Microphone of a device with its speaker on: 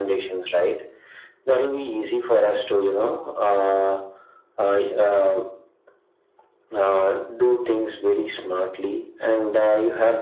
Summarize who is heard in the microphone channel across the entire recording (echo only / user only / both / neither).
echo only